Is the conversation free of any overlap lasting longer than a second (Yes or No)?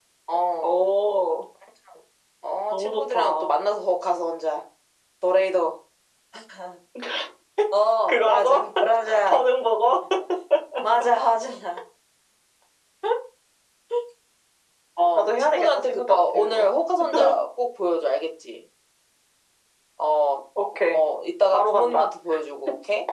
No